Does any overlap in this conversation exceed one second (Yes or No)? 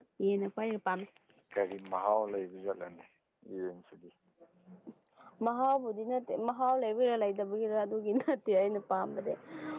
No